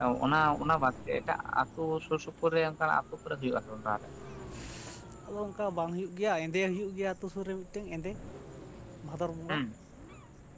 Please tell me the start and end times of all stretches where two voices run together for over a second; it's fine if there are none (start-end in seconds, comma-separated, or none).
none